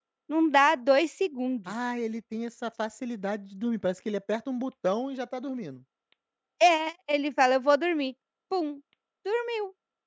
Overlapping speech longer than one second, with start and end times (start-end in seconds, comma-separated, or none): none